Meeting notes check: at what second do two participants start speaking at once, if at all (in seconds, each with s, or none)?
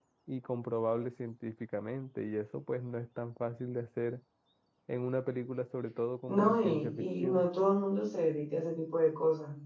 6.3 s